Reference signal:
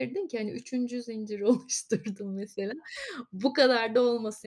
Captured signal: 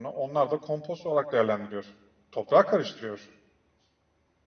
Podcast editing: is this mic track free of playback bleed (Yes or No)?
Yes